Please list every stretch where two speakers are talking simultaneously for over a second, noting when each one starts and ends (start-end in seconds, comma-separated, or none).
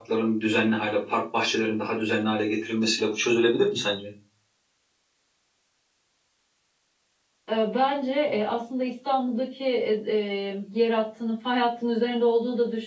none